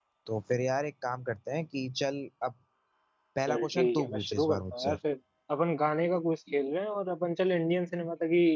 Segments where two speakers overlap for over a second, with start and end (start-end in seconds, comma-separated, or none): 3.5-5.0